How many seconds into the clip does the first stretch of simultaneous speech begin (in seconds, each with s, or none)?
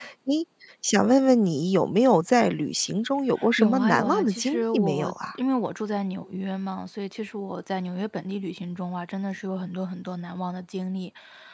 3.4 s